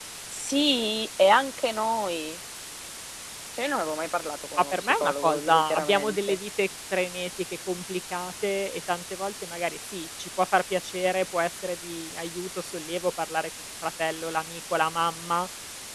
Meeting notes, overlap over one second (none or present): present